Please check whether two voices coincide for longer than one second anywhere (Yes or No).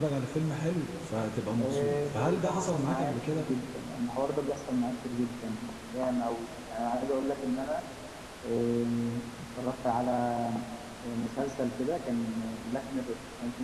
Yes